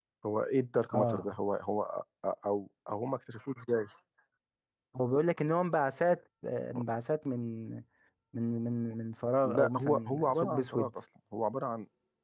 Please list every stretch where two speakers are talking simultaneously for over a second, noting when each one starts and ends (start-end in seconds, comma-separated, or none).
9.4-10.9